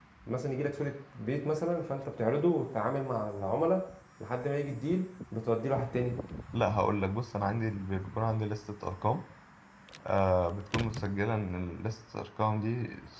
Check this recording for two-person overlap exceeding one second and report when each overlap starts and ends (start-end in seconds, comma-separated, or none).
none